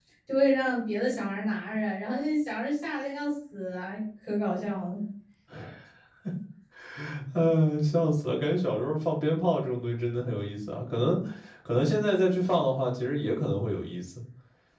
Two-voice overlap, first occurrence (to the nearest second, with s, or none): none